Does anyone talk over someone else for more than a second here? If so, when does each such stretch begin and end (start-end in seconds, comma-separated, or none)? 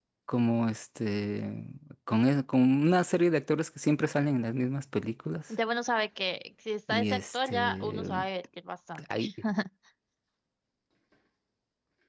6.9-8.2